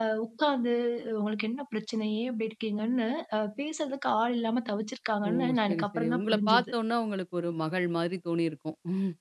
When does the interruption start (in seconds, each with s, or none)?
5.2 s